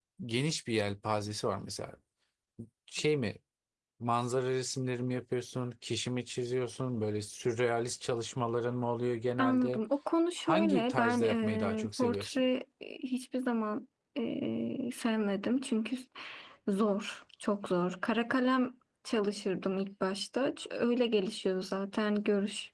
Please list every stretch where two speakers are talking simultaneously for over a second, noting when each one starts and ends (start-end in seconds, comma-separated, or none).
10.4-12.4